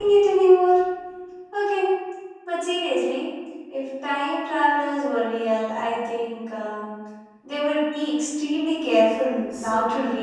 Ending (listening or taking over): taking over